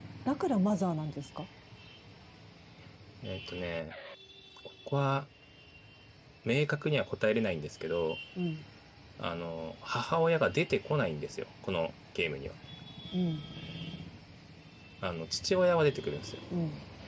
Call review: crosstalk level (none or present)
none